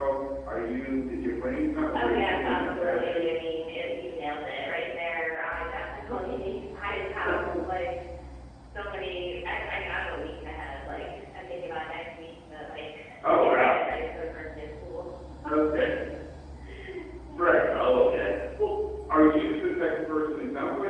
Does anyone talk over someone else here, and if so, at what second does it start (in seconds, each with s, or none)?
1.9 s